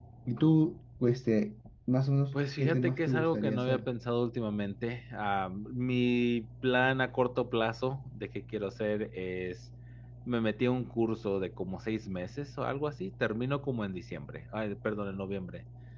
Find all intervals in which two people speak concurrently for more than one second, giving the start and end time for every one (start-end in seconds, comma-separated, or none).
2.3-3.8